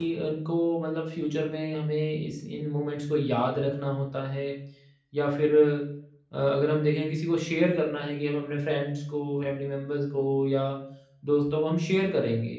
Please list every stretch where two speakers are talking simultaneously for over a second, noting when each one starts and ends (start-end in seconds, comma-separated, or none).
none